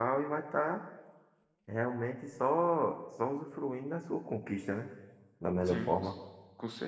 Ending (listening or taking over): taking over